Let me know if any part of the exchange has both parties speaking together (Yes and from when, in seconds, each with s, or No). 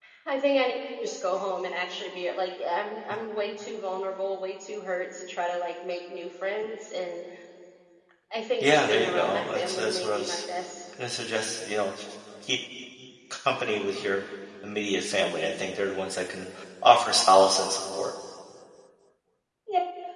Yes, from 8.6 s